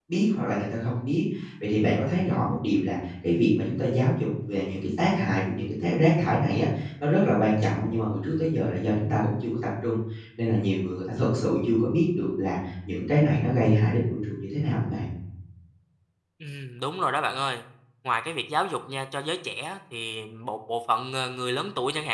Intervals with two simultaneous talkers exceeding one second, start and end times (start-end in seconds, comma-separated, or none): none